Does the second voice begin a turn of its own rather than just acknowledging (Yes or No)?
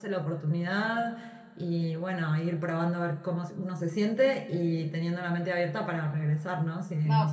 Yes